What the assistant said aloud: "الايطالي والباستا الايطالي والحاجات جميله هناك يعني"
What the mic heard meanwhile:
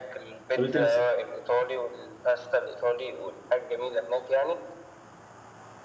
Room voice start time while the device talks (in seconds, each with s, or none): 0.5 s